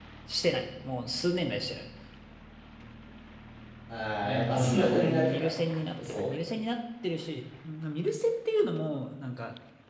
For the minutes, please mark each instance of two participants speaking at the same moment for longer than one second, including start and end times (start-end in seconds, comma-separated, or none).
4.2-5.5